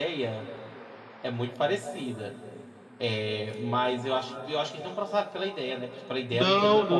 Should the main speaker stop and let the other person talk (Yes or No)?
Yes